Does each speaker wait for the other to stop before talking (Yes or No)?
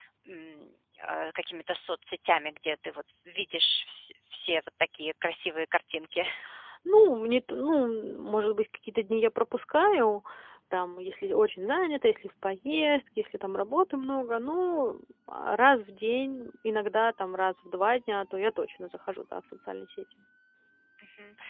Yes